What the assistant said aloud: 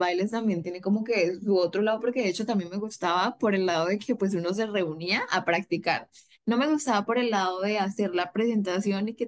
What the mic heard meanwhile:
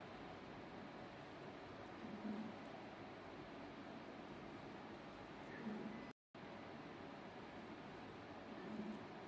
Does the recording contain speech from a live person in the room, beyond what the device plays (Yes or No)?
No